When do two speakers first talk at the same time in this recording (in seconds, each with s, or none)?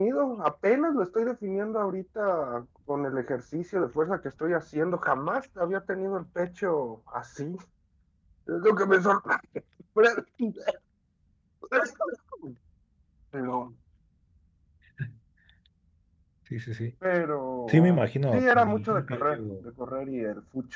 17.7 s